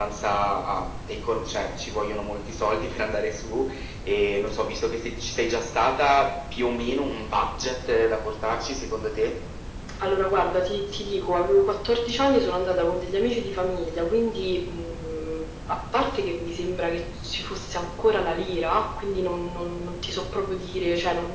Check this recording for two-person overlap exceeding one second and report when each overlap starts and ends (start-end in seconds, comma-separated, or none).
none